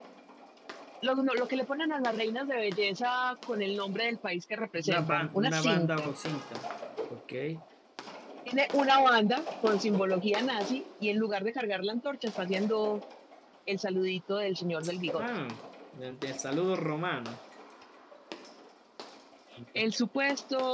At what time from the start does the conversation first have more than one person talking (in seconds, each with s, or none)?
4.8 s